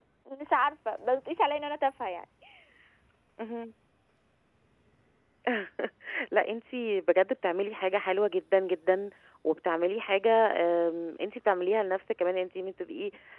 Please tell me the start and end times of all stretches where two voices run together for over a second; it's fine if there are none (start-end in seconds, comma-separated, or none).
none